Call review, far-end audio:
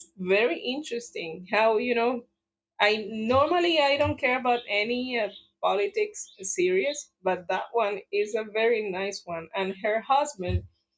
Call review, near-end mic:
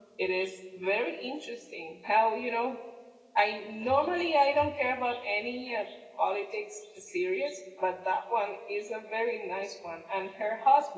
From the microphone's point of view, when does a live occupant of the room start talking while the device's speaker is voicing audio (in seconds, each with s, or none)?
none